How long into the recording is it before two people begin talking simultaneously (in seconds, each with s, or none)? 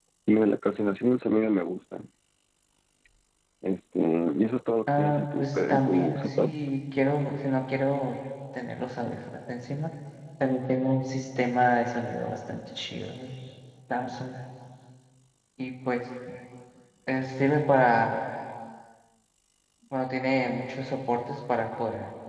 4.9 s